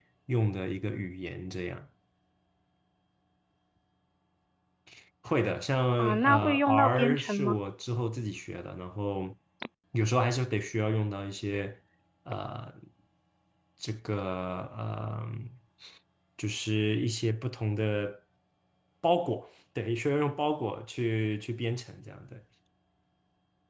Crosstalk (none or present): present